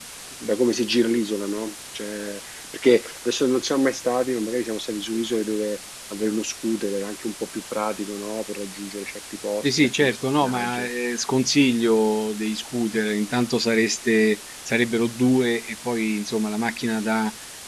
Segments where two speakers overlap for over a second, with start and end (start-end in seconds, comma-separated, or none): 9.6-10.9